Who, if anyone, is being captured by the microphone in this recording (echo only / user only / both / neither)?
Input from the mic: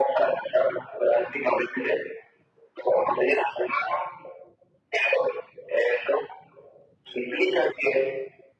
echo only